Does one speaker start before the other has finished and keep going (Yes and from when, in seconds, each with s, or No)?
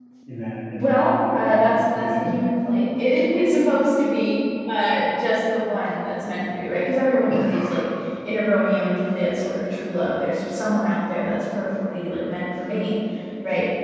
Yes, from 0.7 s